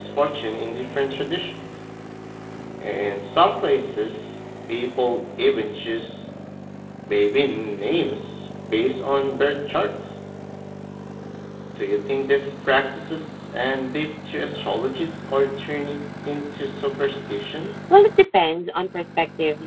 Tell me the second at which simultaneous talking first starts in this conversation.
none

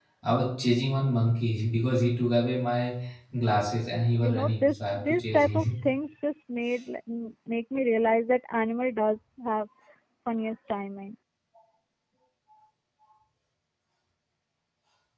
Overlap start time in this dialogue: 4.0 s

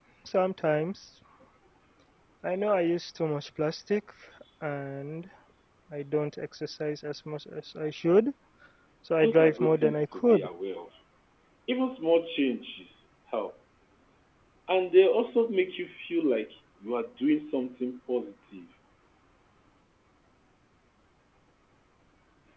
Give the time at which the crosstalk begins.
9.2 s

